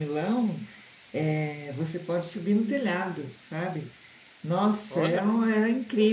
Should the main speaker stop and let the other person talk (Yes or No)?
No